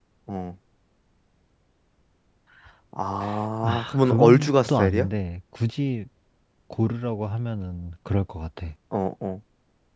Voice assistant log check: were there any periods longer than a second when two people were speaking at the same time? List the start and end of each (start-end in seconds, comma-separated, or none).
3.6-5.1